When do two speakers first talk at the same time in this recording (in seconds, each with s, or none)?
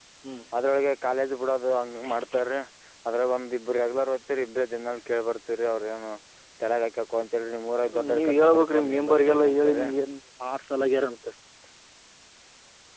7.8 s